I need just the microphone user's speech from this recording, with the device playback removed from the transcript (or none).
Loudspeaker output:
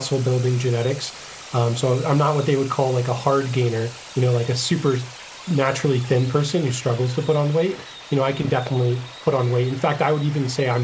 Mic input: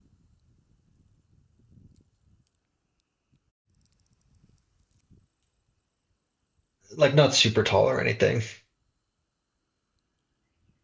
like not super tall or anything.